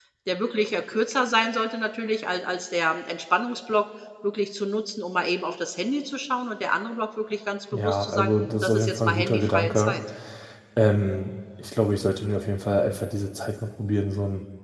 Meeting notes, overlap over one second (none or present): present